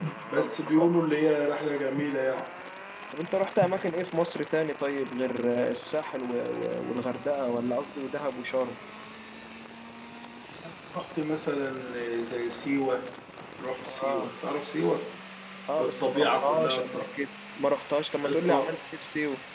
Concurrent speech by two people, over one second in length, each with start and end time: 15.8-17.0

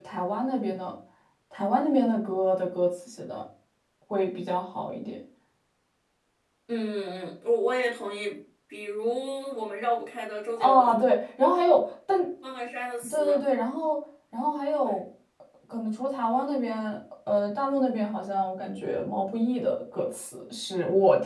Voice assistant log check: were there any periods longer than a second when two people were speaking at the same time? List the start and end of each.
none

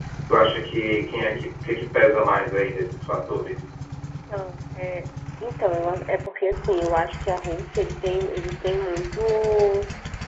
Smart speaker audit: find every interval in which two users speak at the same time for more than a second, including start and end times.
none

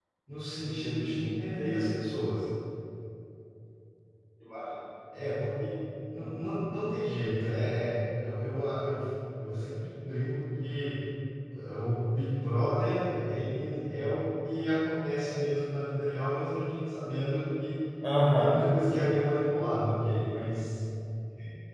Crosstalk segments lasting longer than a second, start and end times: 0.6-1.9

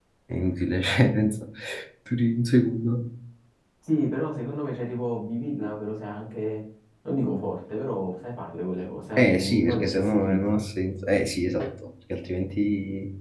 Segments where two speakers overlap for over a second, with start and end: 9.2-10.4

